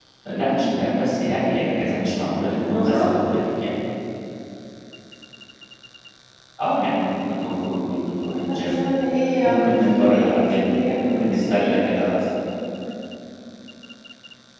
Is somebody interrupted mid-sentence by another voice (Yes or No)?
Yes